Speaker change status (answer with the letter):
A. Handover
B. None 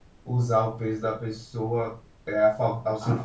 A